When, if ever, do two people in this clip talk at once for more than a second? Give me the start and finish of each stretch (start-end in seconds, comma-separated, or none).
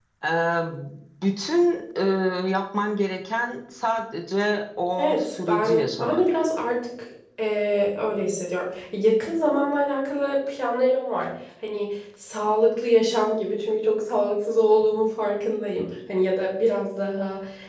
5.0-6.2